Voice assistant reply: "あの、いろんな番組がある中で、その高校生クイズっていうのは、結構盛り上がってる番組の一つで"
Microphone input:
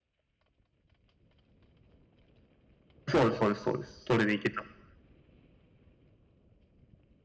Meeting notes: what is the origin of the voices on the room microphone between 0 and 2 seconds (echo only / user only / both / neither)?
neither